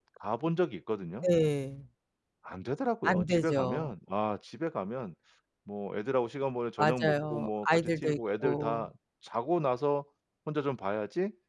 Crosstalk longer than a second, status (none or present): present